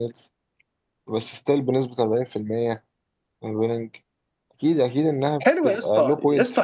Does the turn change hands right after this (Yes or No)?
Yes